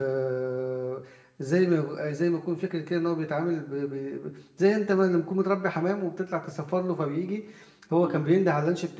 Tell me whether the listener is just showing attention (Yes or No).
Yes